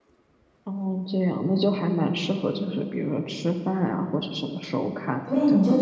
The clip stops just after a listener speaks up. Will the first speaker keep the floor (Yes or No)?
No